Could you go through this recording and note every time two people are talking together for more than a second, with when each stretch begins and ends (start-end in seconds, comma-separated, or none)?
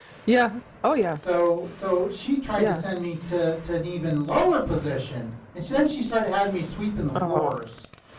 none